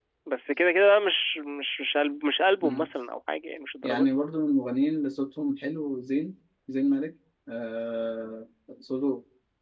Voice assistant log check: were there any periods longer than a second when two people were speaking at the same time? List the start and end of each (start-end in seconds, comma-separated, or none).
none